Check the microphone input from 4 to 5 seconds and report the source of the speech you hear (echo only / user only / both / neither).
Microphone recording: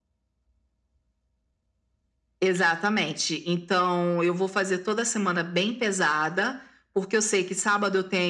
echo only